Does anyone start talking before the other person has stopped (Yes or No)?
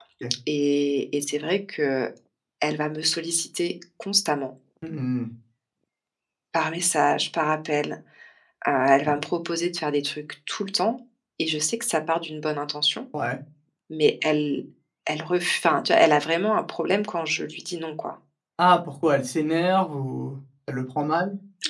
No